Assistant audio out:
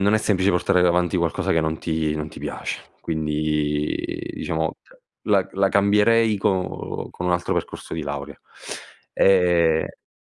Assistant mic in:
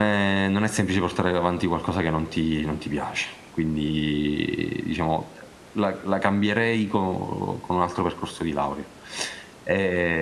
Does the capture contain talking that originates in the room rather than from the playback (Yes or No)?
No